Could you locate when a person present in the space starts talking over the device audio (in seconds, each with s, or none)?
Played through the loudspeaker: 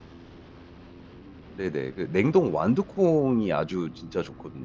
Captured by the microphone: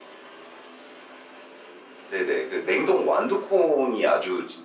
none